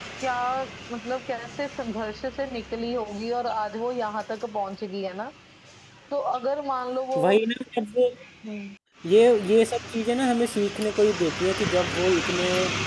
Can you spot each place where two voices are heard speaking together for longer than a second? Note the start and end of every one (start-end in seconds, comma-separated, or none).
none